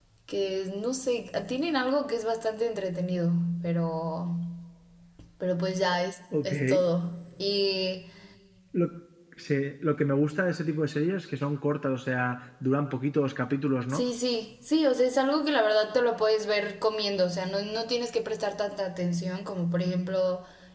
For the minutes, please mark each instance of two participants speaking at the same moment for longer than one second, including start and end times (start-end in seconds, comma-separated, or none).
none